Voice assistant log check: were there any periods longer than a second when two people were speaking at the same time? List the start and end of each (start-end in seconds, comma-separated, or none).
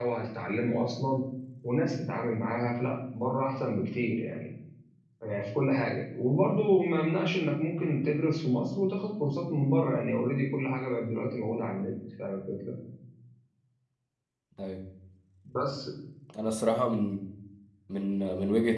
none